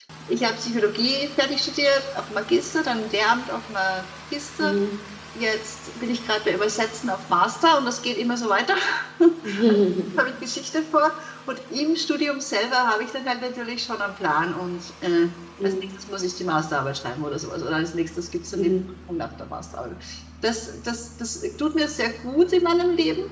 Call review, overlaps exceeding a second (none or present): none